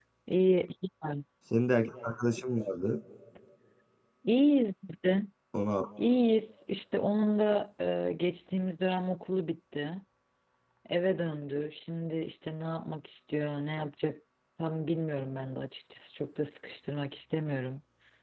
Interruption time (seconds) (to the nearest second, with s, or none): none